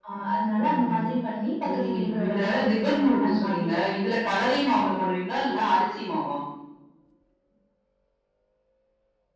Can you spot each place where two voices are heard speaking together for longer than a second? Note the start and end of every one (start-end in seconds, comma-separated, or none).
1.7-4.2